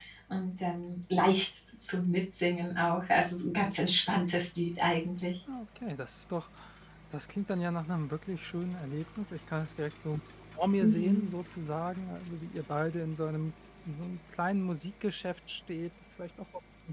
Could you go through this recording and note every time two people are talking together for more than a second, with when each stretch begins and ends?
none

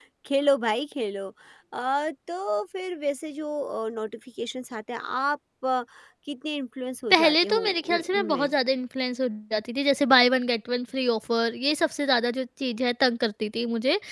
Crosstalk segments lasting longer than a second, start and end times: 7.1-8.5

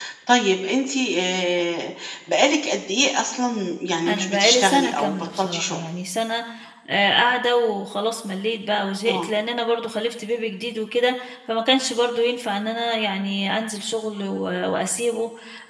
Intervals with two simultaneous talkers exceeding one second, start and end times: 4.1-5.8

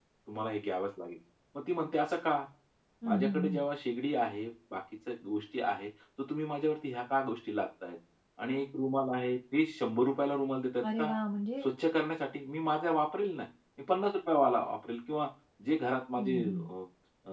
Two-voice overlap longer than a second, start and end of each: none

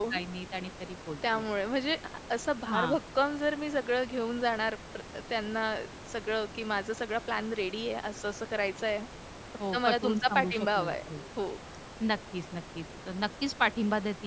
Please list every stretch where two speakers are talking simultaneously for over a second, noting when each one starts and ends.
9.7-11.2

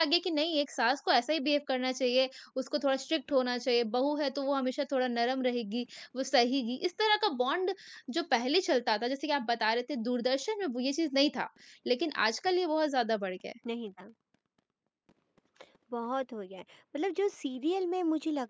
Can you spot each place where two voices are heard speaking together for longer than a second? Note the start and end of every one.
none

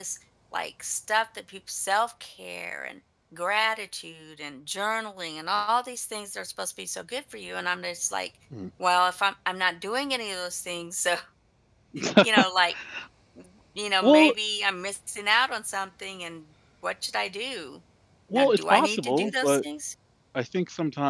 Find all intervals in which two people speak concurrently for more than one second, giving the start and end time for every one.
18.3-19.6

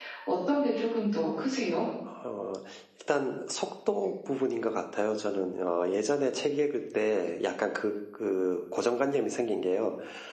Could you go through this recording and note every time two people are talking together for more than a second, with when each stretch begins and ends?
none

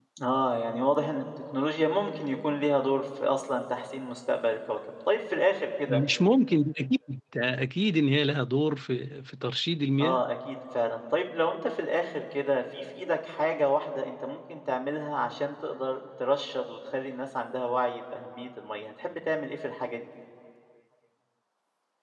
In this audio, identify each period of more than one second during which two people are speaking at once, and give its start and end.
none

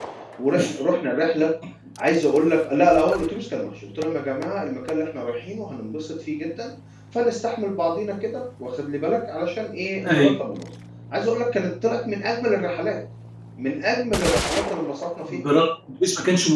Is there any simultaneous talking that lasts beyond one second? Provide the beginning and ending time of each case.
none

